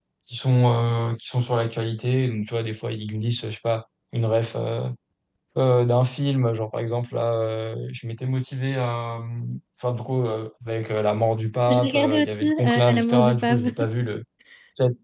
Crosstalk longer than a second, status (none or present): present